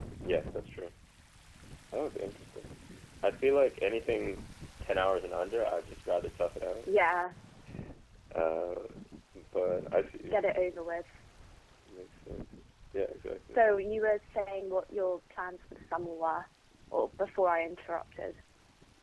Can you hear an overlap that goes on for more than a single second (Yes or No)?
No